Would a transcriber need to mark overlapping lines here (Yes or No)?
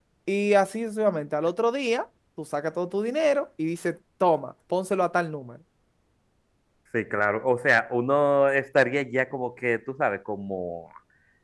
No